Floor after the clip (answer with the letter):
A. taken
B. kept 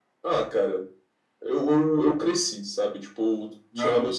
B